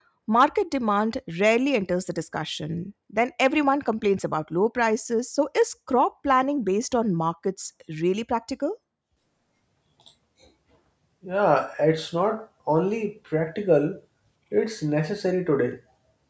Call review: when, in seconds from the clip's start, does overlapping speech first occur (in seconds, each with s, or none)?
none